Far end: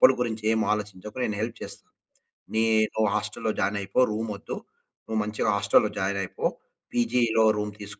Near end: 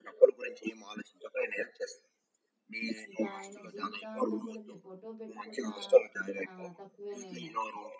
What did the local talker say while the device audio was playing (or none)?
ఇంక ఆయన జీవితాంతం గూడా మీ ఫోటో పెట్టుకున్నా ఆహ్, తక్కువేనేమో.